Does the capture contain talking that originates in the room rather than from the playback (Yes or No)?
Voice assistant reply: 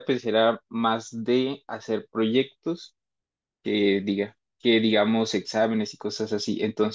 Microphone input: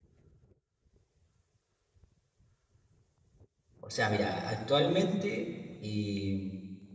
Yes